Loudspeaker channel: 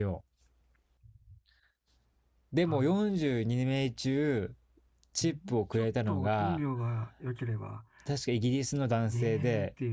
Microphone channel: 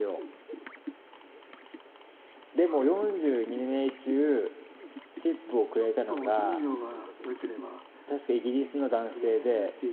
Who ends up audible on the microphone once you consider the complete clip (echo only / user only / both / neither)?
echo only